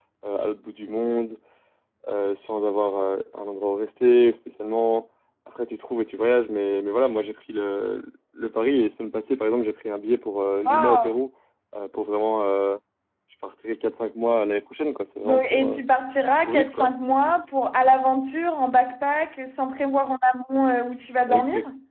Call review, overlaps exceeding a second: none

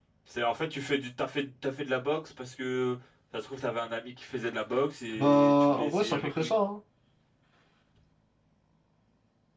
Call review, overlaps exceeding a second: present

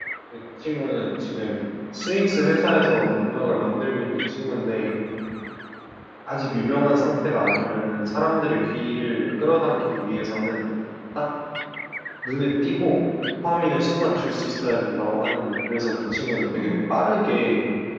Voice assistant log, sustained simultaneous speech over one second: present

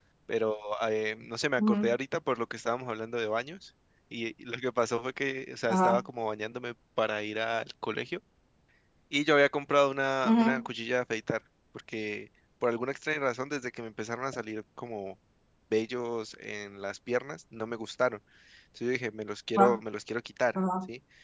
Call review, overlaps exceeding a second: none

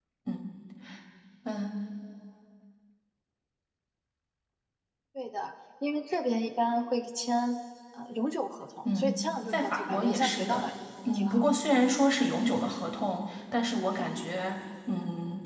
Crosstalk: present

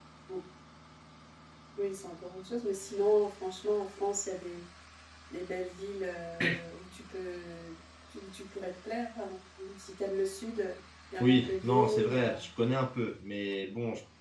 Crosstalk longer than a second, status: present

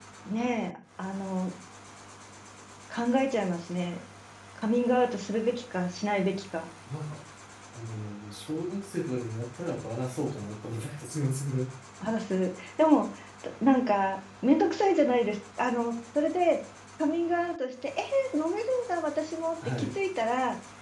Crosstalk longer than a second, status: none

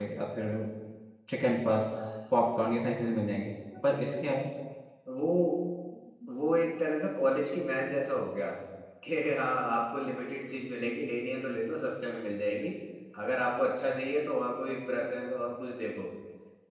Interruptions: none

